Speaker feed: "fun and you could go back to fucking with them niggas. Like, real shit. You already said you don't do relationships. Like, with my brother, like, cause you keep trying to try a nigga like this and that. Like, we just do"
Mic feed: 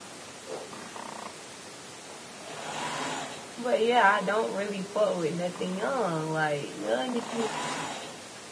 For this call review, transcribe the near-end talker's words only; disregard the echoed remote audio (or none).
But yeah, I don't really fuck with nothing young. Like young niggas.